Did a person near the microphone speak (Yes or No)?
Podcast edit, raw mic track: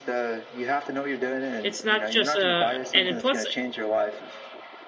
Yes